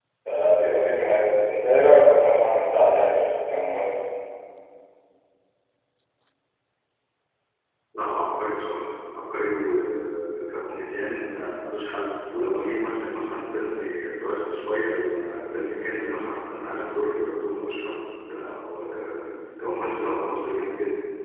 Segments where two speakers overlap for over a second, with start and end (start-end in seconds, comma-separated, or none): none